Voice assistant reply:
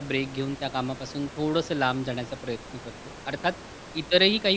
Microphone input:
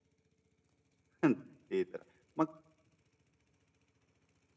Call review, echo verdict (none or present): none